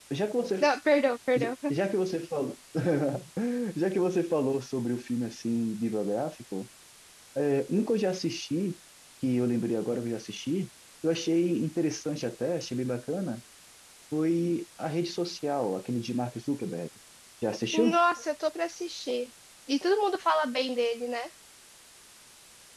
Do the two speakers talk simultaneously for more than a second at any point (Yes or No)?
No